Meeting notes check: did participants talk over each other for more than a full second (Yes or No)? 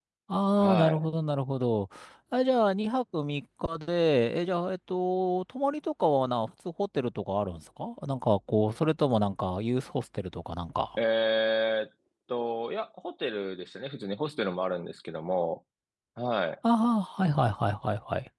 No